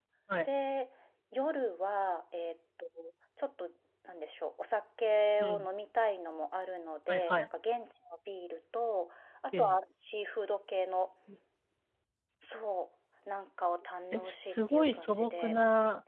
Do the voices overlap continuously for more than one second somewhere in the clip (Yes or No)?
Yes